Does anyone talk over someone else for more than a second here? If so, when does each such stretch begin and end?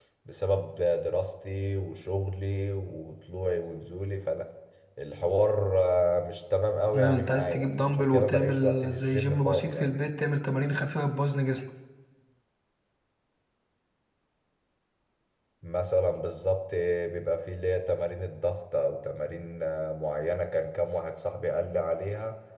7.0-9.9

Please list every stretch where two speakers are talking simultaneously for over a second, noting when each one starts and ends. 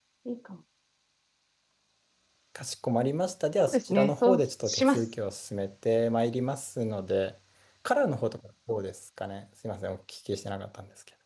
3.5-5.0

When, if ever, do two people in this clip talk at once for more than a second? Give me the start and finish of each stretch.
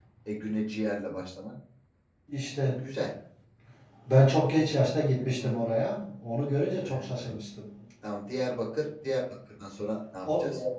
none

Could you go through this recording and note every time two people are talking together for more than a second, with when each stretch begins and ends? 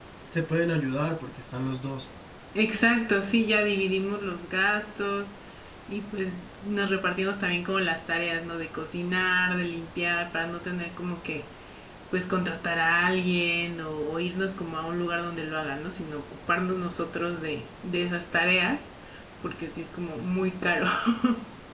none

